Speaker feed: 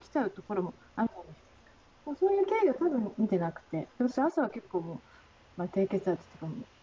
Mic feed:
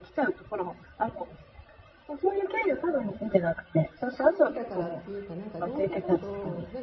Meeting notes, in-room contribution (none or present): present